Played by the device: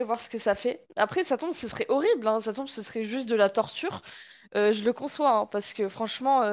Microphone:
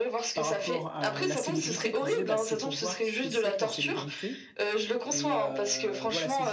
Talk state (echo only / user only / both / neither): both